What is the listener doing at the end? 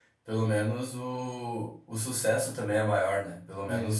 listening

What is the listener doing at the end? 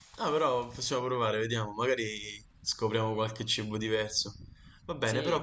listening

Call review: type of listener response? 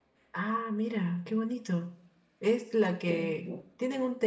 listening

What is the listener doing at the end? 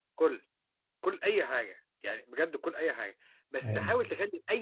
listening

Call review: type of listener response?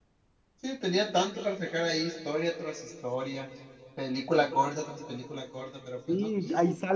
taking over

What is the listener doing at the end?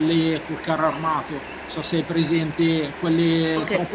taking over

